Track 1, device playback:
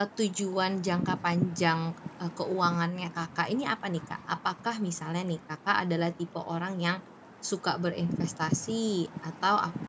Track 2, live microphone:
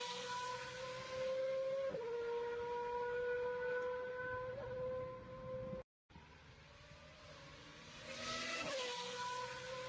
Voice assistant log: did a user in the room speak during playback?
No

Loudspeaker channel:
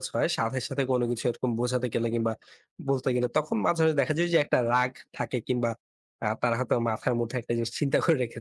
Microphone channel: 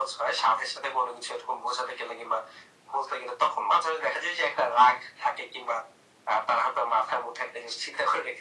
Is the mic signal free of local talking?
Yes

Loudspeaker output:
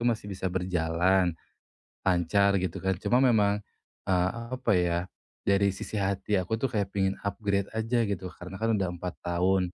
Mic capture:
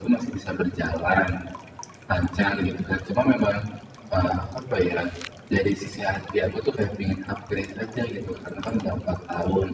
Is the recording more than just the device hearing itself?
No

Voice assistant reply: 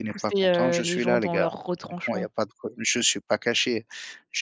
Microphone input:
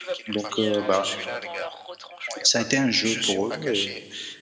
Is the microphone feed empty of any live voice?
No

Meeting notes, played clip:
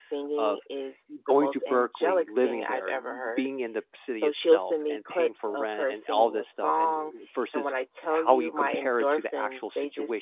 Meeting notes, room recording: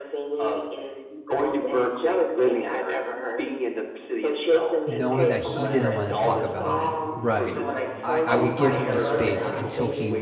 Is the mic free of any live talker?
No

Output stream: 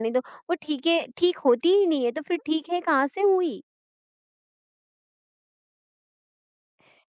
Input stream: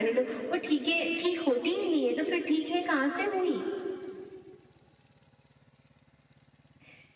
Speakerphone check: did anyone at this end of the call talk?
No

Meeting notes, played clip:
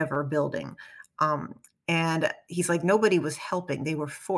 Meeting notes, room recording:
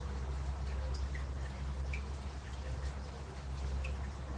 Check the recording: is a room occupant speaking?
No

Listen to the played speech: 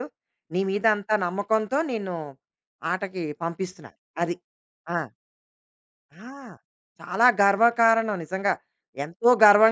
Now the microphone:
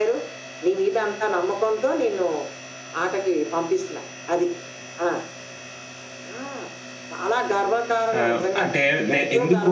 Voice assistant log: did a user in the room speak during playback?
Yes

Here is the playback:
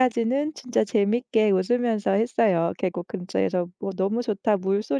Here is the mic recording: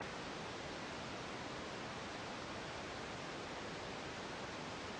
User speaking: No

